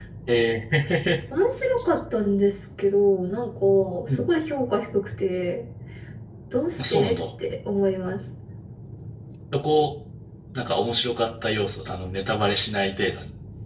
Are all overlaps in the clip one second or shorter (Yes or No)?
Yes